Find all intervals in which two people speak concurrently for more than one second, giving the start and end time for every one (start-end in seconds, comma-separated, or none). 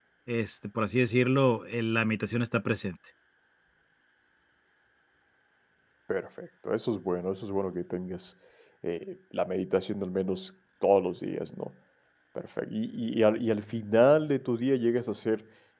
none